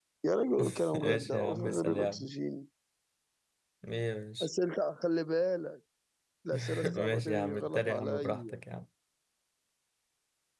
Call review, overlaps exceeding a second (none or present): present